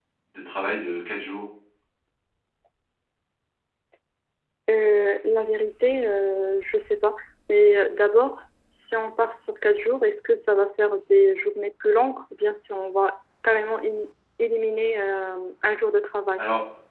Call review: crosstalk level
none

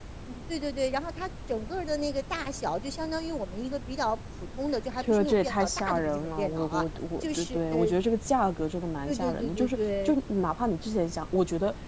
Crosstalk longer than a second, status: present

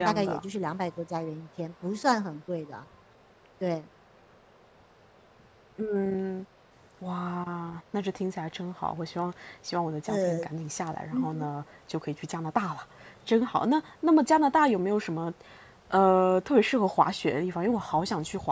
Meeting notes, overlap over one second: none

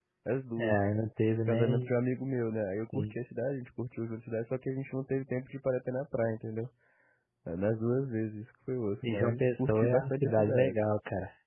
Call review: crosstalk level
present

